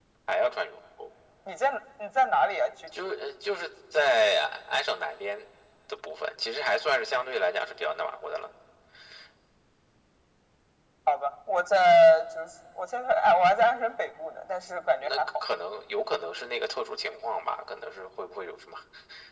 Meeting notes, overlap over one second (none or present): none